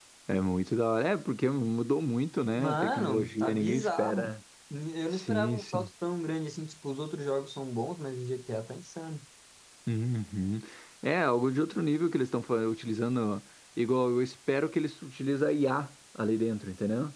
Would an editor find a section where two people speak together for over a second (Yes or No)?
Yes